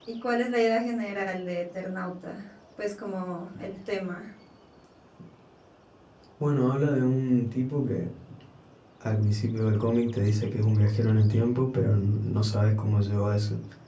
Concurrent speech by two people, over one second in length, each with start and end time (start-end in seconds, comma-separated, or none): none